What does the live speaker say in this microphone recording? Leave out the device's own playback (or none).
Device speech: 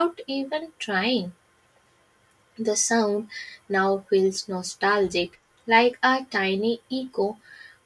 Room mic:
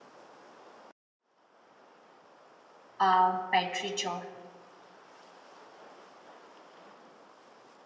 a petrichor,